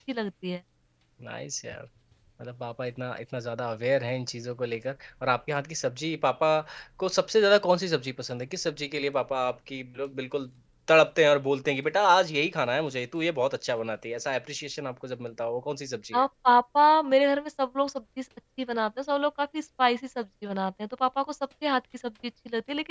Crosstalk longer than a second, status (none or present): none